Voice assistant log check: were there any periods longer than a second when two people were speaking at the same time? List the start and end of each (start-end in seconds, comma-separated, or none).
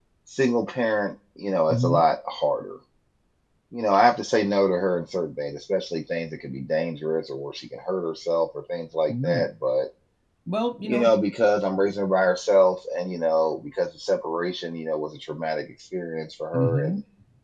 none